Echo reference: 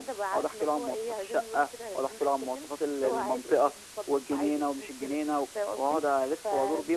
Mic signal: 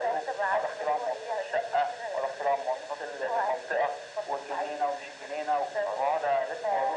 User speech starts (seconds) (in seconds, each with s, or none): none